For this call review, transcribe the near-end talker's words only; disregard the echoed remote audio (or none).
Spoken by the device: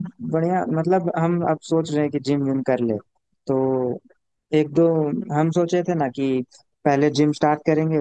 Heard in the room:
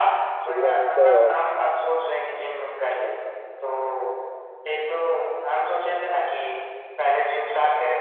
सुविधा मिलता है और